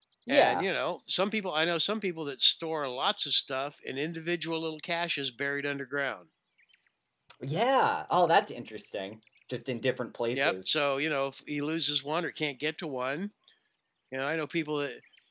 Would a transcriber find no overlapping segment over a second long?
Yes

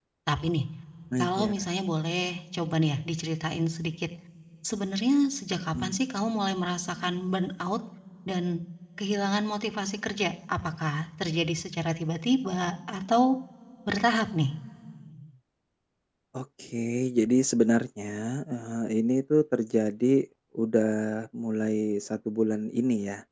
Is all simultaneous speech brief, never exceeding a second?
Yes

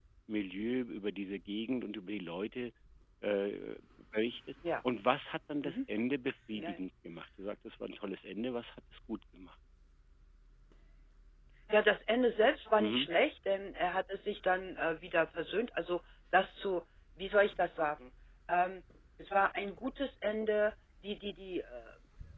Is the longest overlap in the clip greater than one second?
No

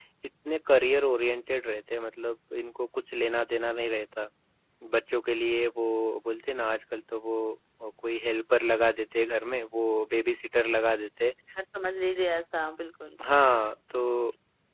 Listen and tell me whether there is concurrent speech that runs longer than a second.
No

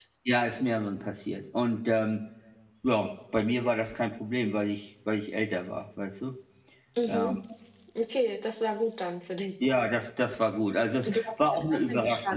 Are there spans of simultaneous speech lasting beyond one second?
Yes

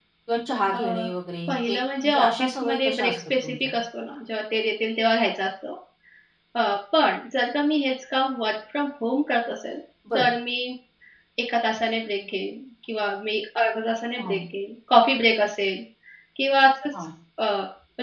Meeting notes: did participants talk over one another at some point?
Yes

